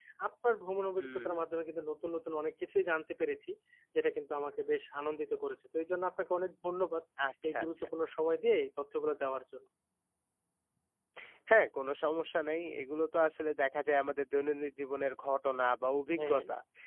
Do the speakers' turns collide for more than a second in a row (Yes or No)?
No